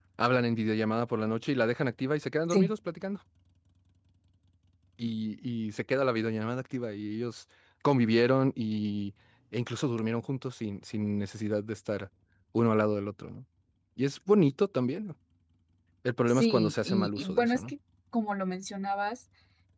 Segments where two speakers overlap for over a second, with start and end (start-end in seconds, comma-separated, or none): 16.3-17.7